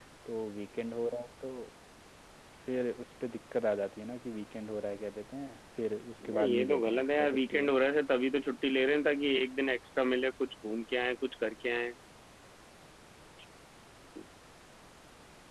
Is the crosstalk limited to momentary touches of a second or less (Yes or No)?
No